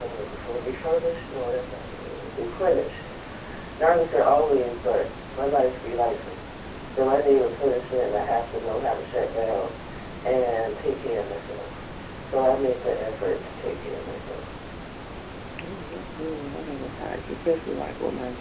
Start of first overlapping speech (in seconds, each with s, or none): none